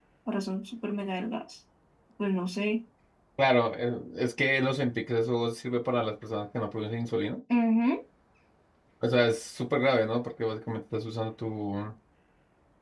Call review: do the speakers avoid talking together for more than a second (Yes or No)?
Yes